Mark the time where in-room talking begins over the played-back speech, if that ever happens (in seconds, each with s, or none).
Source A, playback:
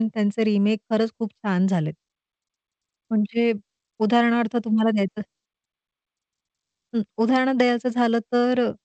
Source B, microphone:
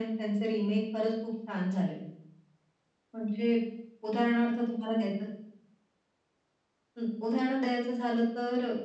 none